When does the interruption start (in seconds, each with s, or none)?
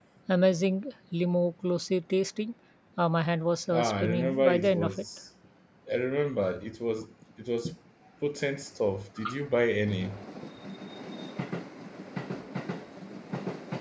3.7 s